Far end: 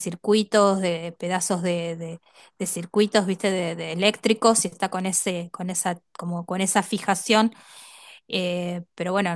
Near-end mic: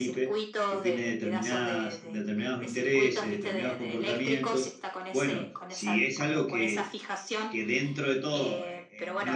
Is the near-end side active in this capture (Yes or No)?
Yes